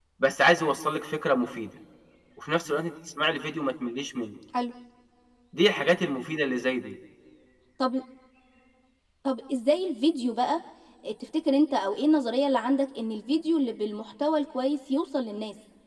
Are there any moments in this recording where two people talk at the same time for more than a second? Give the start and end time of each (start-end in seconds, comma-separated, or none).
none